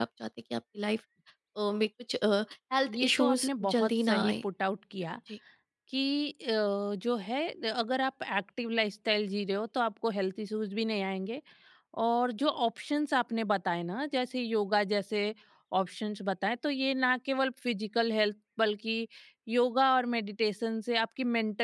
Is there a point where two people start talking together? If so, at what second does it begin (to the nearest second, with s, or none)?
3 s